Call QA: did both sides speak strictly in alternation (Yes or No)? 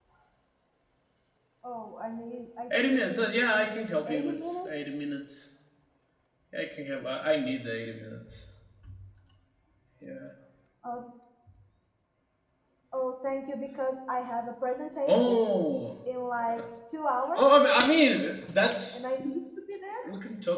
No